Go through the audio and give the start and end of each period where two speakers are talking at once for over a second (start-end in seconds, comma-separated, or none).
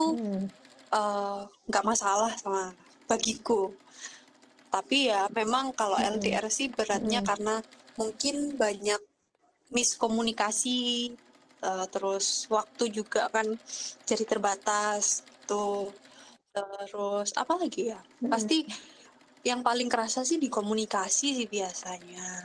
none